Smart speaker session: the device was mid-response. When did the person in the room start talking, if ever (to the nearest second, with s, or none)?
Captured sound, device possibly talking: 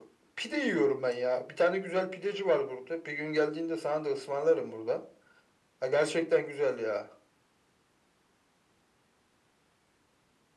none